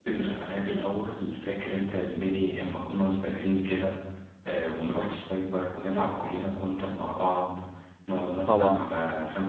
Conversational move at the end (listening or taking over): listening